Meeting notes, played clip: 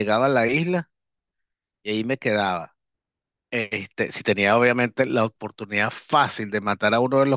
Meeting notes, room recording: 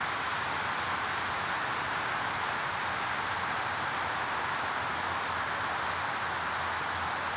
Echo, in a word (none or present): none